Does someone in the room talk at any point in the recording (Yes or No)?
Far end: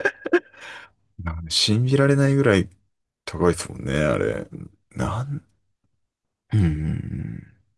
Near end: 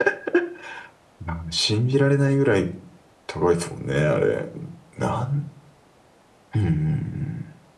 No